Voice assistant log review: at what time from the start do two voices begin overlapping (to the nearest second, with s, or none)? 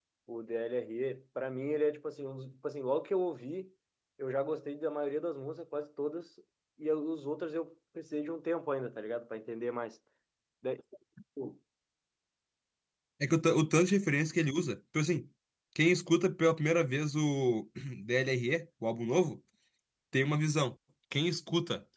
none